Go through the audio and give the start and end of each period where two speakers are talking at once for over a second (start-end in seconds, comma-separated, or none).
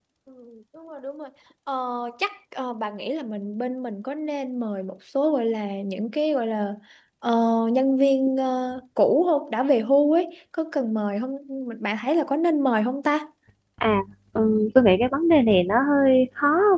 none